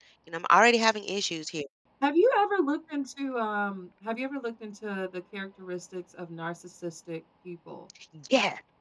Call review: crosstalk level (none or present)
none